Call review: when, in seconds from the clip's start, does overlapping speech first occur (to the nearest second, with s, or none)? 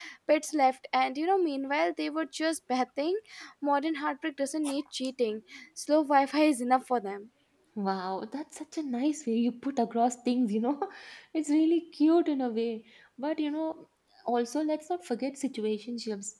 none